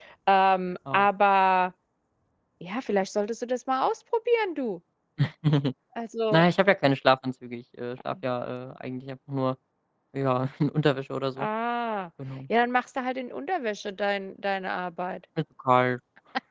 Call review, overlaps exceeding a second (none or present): none